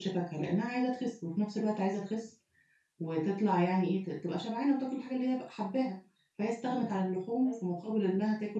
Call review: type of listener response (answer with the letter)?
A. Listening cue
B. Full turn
A